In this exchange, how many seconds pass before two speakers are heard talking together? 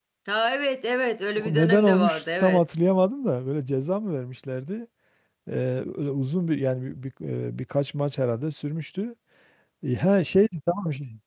1 s

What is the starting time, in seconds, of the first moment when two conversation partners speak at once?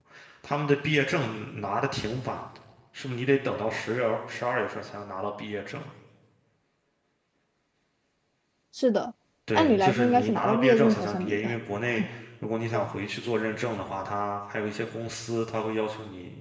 10 s

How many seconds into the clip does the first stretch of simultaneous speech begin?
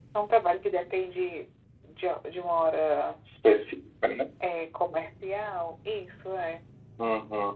none

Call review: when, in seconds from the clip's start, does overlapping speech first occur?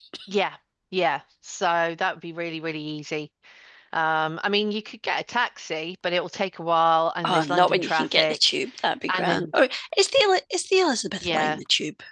7 s

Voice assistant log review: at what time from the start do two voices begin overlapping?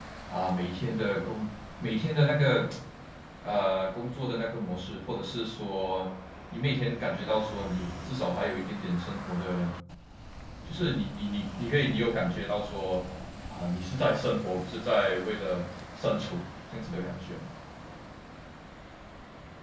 none

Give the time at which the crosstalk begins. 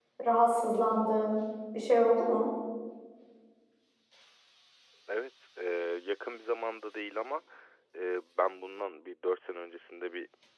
none

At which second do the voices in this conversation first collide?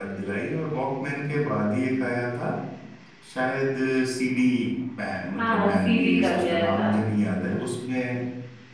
5 s

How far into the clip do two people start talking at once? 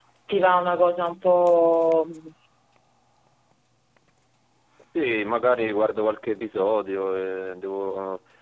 none

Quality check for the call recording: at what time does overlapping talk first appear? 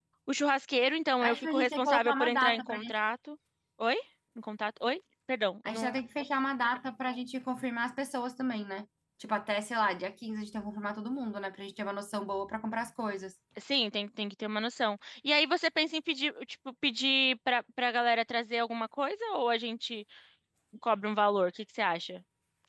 1 s

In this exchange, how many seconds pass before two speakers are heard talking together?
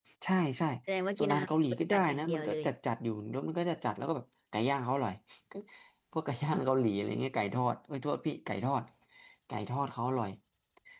1 s

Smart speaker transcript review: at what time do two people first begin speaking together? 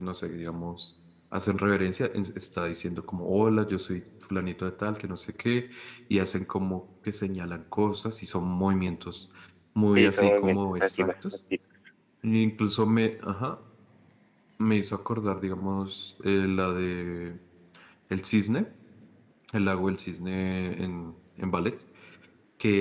10 s

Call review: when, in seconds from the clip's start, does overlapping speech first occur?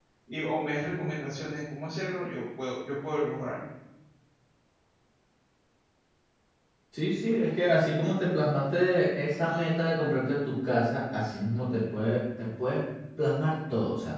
none

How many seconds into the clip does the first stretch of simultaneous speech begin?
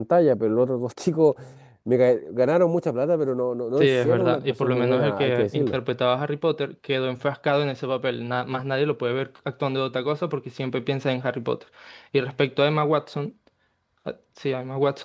4 s

